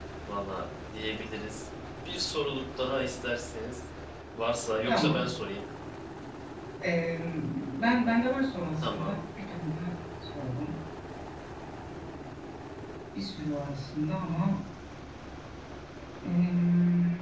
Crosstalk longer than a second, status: none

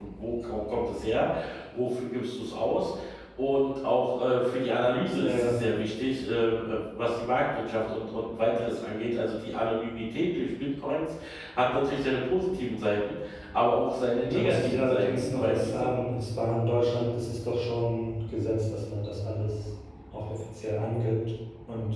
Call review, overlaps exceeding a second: present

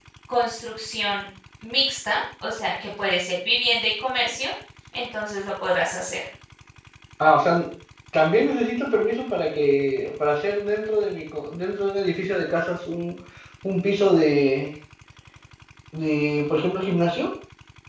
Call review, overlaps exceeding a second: none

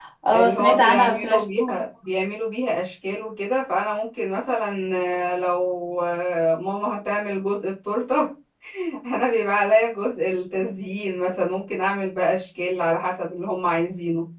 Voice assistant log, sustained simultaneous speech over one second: present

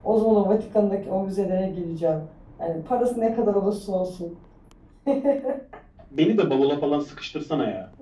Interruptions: none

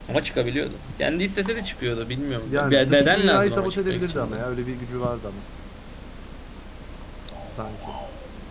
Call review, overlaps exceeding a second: present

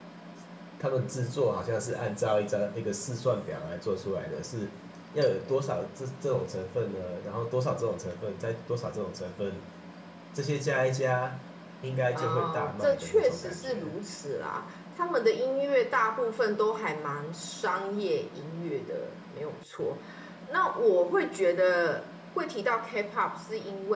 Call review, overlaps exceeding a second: present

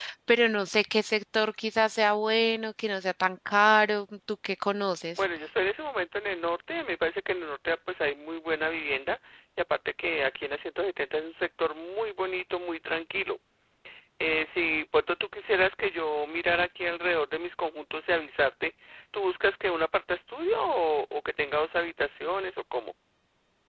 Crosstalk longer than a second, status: none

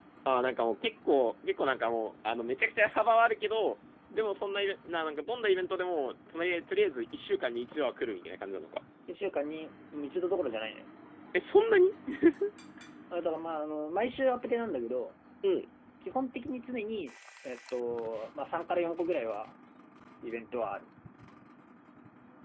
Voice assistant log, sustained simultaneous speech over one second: none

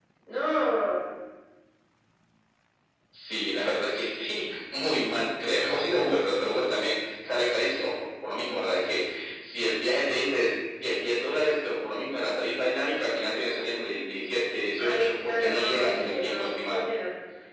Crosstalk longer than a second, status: present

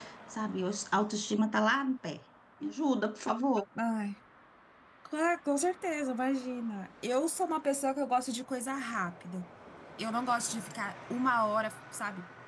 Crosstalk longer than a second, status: none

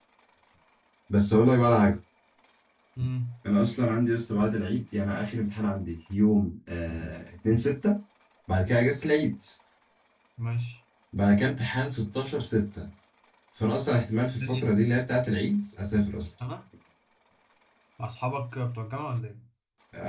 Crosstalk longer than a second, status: none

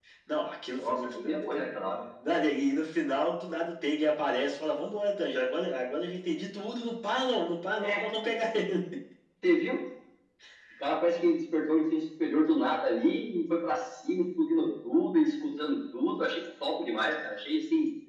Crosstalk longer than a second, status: present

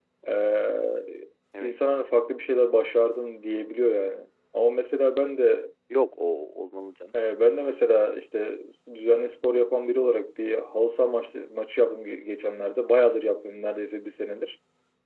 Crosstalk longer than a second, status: none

